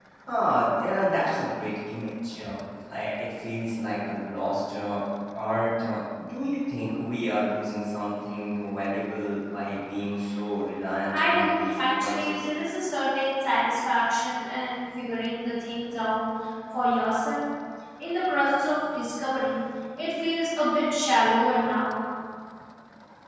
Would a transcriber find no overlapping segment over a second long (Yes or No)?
No